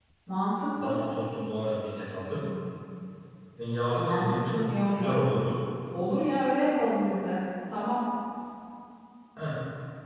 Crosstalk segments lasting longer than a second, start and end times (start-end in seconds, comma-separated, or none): 4.0-5.3